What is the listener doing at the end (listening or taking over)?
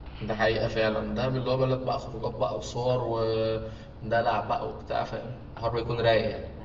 taking over